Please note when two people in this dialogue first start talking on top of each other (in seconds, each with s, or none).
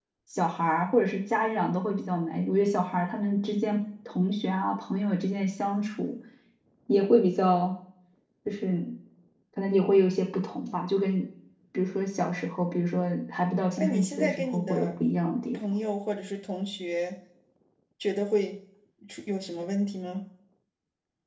13.8 s